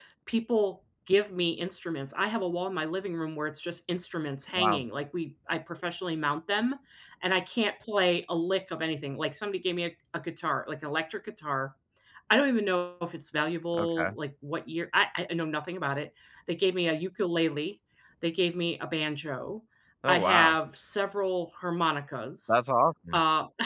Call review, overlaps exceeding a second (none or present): none